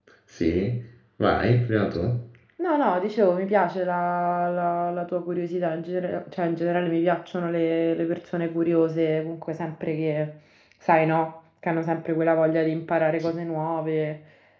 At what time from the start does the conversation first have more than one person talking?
none

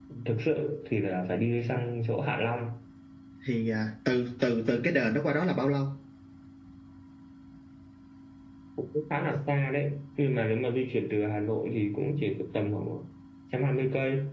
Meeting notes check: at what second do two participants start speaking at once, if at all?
none

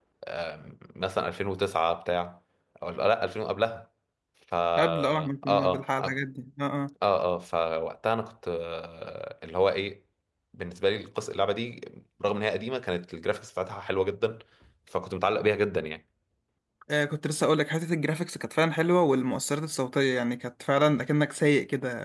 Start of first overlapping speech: 4.8 s

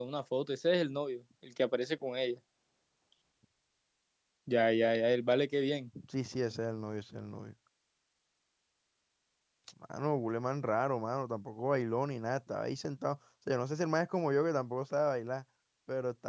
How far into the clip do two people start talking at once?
none

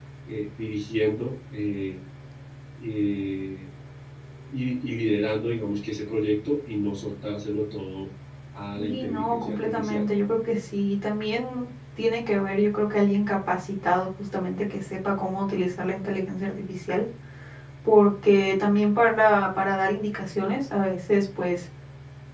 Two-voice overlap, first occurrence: 8.8 s

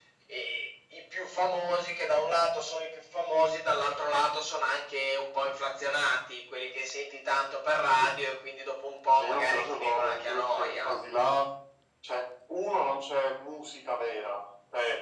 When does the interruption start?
9.1 s

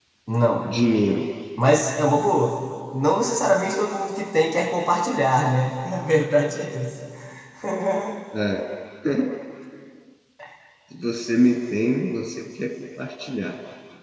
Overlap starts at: none

